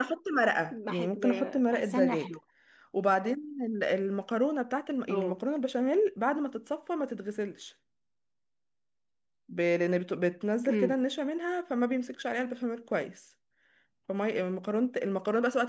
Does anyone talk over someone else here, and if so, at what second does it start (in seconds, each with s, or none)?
0.7 s